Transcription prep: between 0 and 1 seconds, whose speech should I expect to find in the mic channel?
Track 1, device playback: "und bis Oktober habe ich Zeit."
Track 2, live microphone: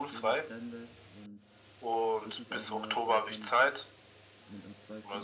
both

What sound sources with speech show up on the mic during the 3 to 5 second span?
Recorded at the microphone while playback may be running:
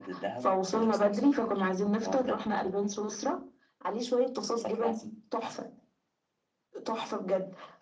echo only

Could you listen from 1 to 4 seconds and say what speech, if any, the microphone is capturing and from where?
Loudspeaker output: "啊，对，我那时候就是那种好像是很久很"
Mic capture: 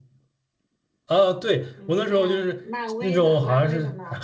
both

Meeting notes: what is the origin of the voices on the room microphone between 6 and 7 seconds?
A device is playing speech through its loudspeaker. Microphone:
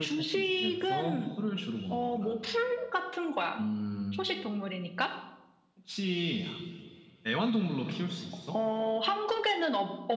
user only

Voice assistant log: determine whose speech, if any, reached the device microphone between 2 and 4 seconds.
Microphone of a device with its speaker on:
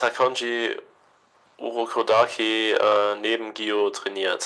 echo only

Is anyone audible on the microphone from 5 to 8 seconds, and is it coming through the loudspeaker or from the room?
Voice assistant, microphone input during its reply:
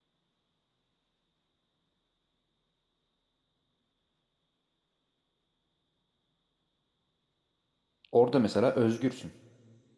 neither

